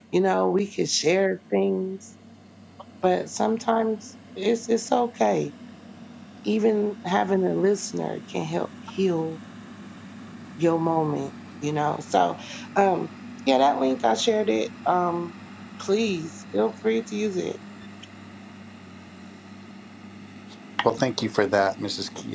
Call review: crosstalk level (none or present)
none